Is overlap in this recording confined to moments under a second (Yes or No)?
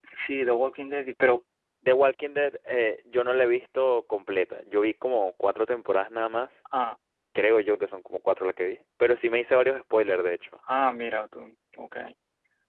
Yes